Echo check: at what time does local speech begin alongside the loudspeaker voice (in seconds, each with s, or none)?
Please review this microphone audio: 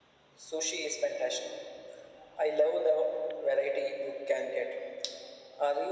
none